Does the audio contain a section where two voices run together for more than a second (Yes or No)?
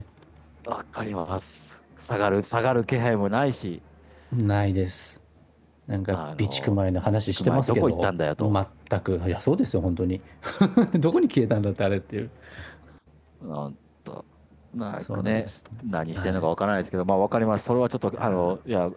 Yes